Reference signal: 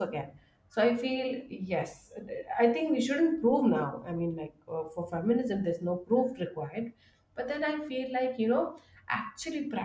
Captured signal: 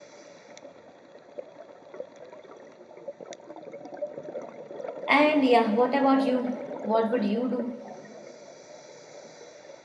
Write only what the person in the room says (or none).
And yeah, what about you? What would you do?